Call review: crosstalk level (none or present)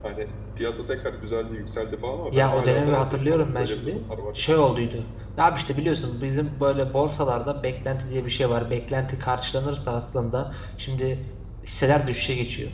present